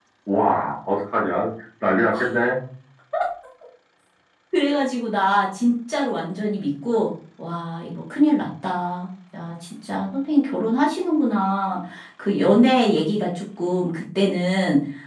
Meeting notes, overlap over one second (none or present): none